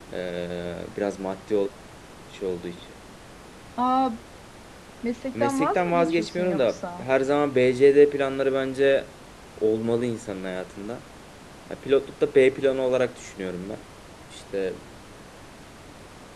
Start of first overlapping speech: 5 s

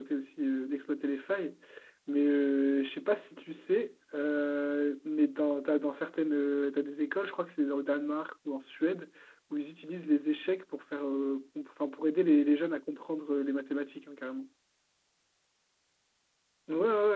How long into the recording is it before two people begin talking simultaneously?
none

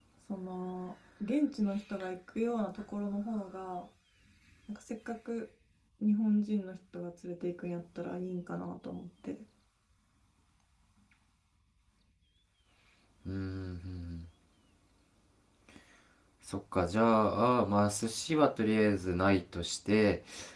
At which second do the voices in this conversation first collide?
none

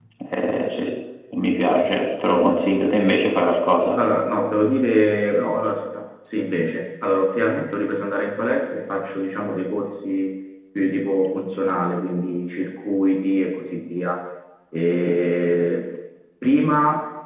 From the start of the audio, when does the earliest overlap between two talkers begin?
none

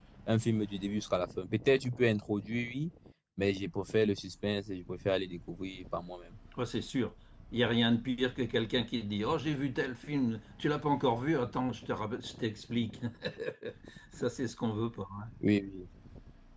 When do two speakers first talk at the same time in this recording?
none

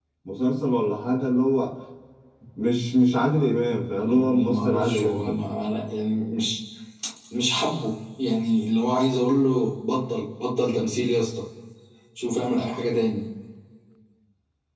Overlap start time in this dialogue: 4 s

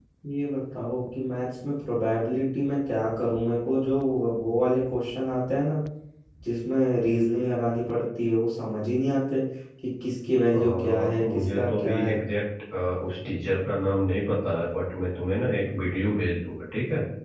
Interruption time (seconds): 11 s

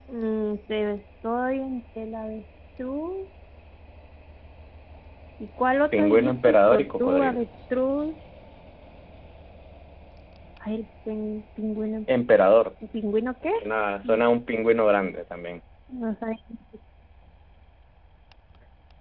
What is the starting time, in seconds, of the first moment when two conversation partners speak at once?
6 s

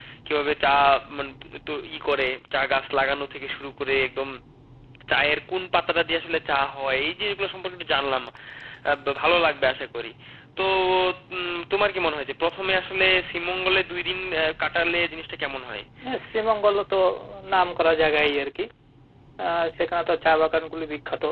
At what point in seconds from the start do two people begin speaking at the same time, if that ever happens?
none

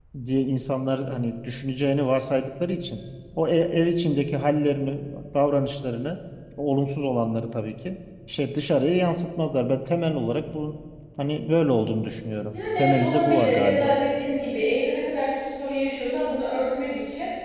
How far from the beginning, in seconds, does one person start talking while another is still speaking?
13 s

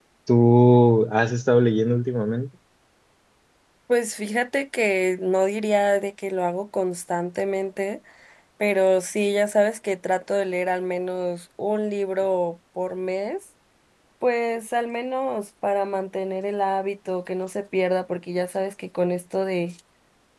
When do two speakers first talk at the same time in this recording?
none

